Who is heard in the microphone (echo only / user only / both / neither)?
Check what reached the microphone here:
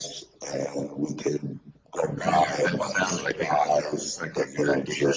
both